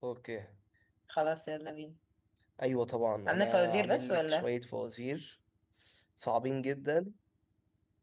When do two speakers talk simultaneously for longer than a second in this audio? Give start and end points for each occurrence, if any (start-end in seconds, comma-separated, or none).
3.3-4.5